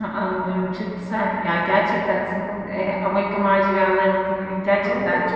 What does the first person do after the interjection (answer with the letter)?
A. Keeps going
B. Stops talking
B